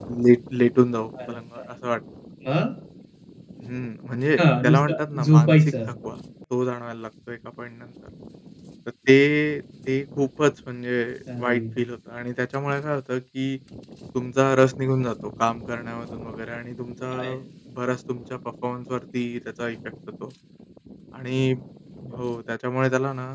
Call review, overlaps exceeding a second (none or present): present